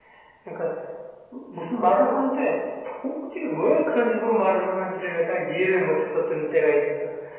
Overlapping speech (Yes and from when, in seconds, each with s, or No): No